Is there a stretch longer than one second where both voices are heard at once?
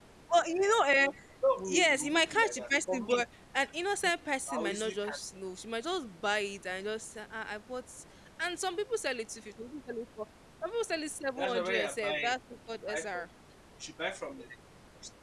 Yes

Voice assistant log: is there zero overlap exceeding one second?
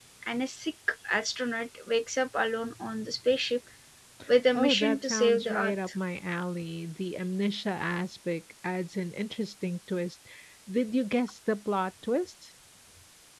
No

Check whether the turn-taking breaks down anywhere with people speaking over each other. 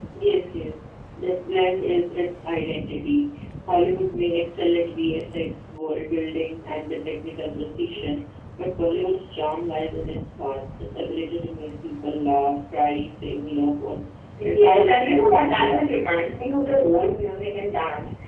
Yes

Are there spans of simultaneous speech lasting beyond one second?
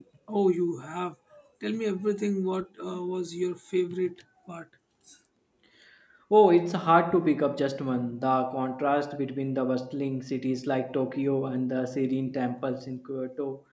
No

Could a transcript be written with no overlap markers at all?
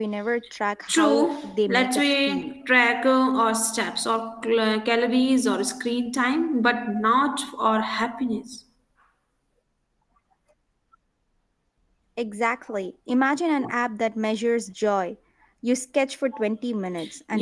No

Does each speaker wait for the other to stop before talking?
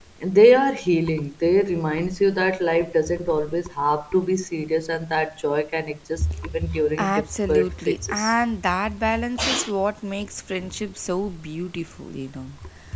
No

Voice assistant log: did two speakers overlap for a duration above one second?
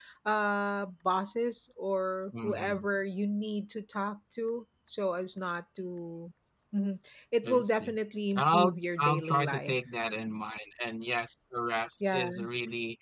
Yes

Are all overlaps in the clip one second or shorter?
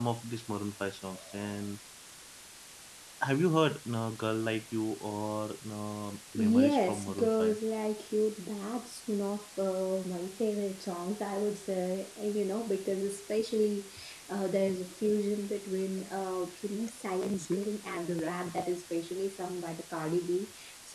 No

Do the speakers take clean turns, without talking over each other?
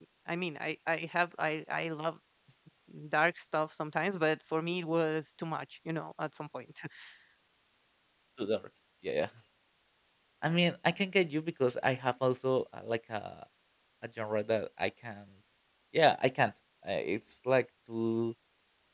Yes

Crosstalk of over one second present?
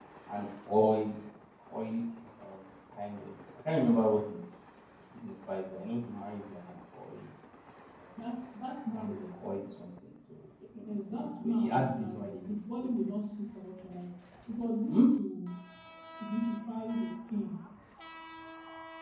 Yes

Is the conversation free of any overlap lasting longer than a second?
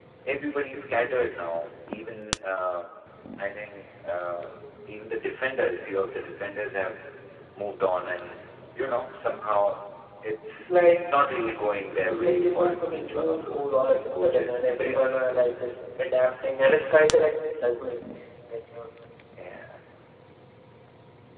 No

